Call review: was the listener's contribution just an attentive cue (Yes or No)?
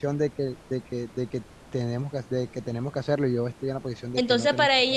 No